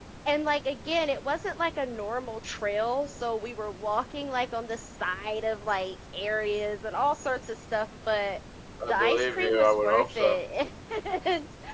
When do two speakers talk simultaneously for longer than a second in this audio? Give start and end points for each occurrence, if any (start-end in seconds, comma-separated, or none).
8.9-10.4